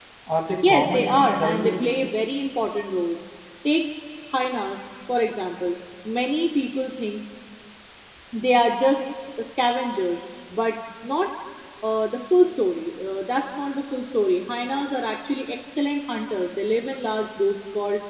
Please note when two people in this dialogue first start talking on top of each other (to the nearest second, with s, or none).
1 s